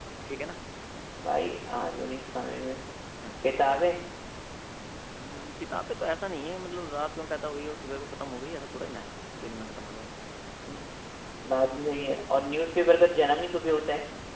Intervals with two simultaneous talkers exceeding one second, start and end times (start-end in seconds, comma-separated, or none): none